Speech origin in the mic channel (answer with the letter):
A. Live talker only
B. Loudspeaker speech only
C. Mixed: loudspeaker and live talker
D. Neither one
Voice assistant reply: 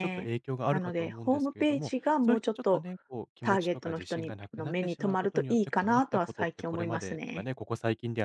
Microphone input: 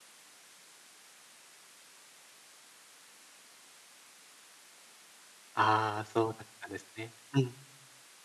A